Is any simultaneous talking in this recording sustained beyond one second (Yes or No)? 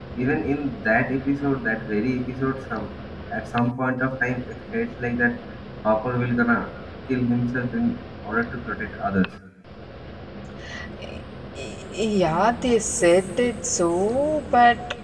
No